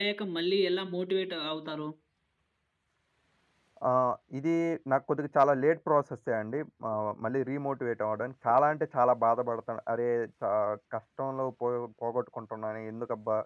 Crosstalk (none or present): none